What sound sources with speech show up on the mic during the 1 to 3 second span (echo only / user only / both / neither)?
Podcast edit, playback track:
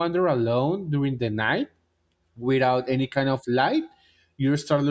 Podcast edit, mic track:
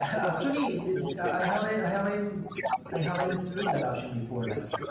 both